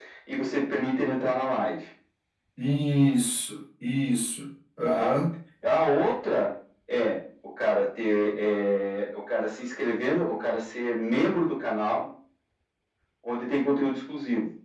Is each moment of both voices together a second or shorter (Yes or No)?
Yes